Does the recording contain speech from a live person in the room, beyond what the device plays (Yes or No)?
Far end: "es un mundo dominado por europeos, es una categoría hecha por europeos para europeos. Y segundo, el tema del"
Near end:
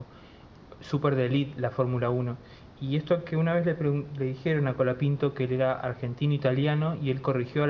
Yes